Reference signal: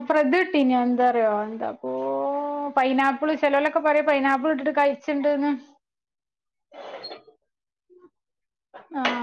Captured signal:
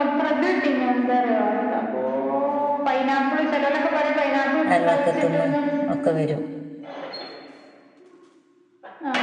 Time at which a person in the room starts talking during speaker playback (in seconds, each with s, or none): 4.7 s